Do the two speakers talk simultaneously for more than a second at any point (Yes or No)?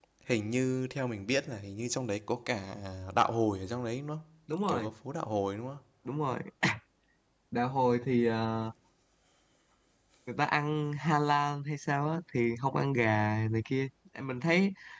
No